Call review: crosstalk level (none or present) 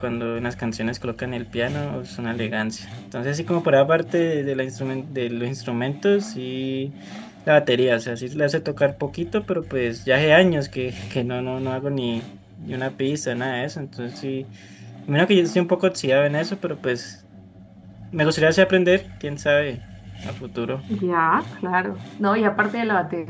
none